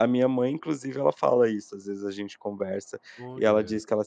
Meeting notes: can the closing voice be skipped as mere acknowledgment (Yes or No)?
Yes